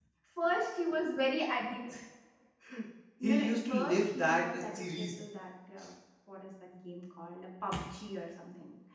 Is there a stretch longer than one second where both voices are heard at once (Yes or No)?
Yes